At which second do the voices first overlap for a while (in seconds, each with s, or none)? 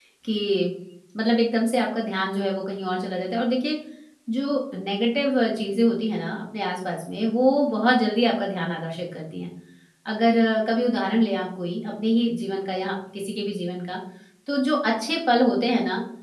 none